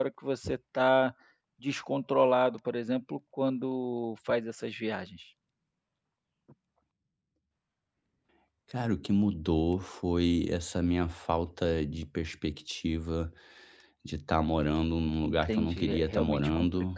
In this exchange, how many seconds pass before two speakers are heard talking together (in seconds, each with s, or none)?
15.2 s